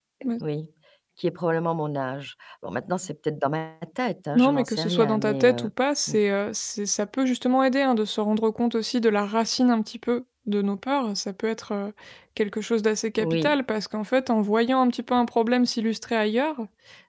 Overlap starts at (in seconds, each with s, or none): 4.3 s